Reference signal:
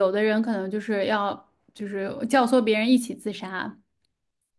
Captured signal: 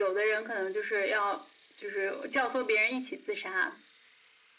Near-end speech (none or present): none